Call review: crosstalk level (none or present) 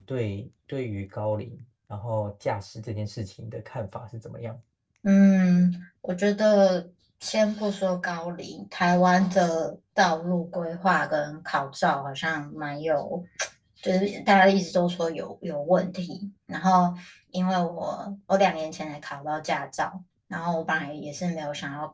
none